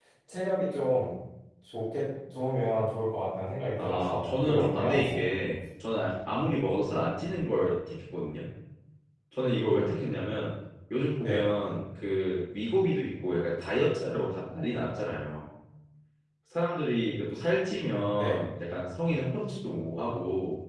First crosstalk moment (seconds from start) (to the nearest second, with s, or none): 4 s